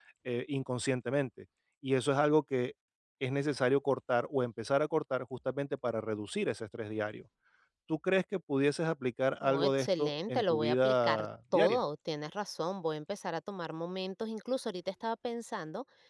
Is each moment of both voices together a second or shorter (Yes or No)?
No